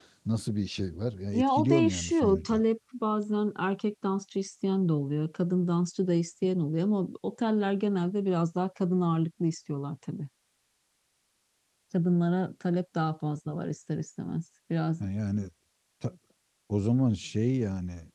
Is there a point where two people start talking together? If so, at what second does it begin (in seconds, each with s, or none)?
1.3 s